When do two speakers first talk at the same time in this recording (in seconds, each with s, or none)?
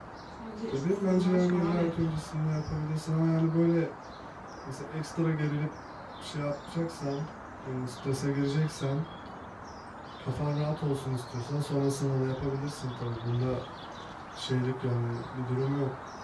0.7 s